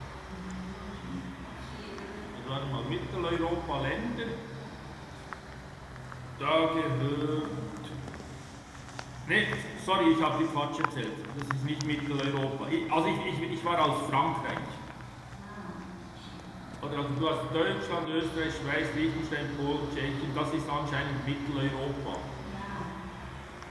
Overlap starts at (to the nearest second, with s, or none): none